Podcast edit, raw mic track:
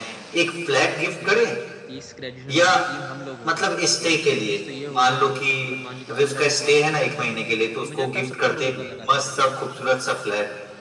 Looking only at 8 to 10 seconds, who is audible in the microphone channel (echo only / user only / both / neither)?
both